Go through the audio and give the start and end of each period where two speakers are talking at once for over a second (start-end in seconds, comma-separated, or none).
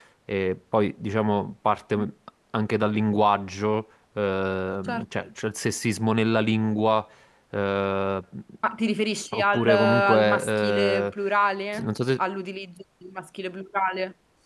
9.3-11.1